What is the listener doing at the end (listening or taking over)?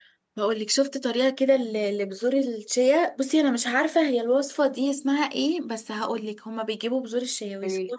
listening